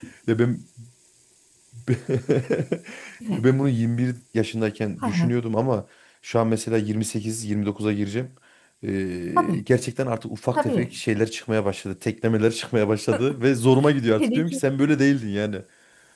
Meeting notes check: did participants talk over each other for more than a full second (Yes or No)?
No